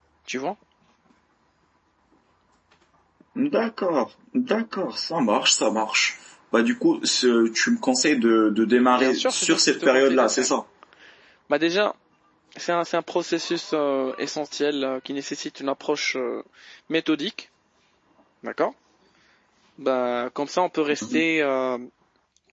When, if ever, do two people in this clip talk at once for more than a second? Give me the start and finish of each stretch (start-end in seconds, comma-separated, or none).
8.9-10.5